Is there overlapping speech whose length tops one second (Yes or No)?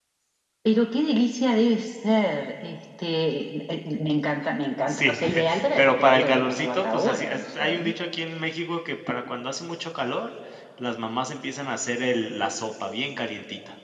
Yes